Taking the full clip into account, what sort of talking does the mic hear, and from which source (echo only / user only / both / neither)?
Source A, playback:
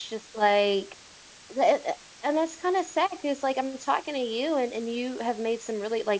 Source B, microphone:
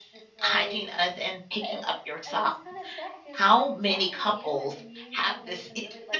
both